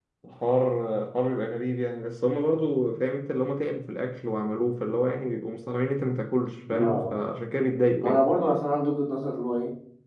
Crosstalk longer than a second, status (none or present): none